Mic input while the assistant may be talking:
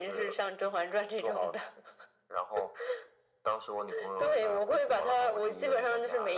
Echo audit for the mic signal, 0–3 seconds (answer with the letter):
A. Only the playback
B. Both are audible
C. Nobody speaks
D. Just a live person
A